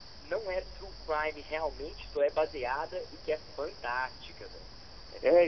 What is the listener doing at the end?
taking over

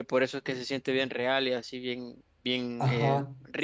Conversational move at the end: taking over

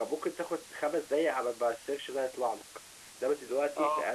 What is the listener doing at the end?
listening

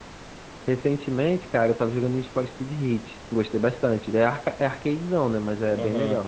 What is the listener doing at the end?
taking over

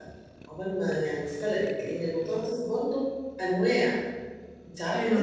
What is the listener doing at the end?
taking over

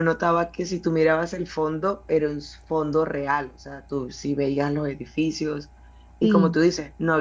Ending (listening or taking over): listening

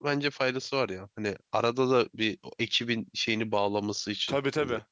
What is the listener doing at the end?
taking over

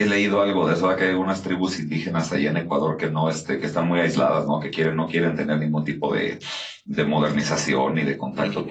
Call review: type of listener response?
taking over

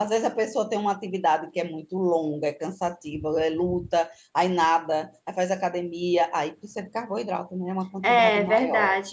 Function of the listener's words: taking over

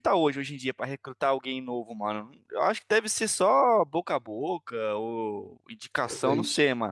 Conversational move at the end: listening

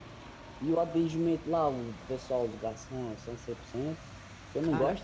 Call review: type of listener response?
listening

